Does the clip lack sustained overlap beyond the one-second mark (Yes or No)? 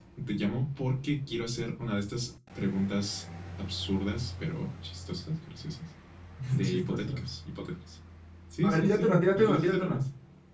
No